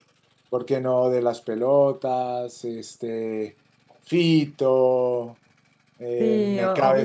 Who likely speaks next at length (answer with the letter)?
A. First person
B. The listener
B